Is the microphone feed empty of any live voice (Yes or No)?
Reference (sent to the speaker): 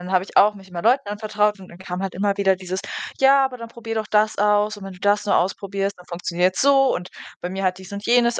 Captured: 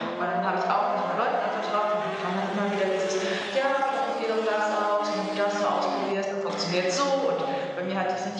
Yes